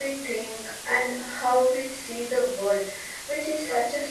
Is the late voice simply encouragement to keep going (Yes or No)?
Yes